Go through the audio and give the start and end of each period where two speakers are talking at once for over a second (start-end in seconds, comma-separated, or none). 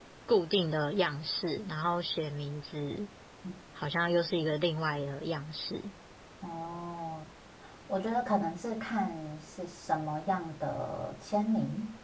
none